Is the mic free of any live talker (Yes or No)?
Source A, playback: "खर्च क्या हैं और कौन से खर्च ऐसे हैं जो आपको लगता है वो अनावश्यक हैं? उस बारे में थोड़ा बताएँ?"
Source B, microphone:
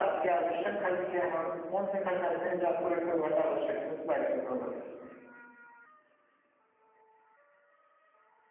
Yes